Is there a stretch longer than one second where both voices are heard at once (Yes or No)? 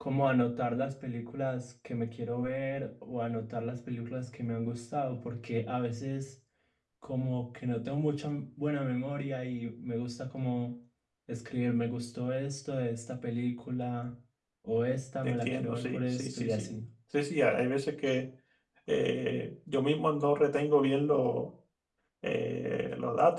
Yes